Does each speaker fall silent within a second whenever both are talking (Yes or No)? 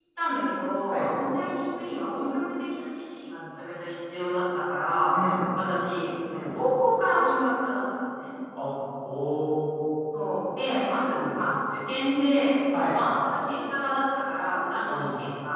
Yes